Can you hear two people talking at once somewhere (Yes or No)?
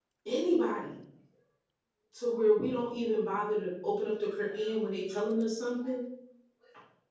No